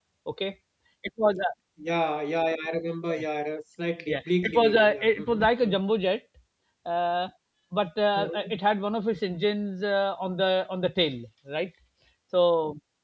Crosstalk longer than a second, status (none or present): present